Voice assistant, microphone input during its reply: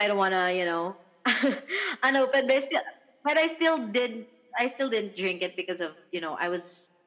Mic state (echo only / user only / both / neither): echo only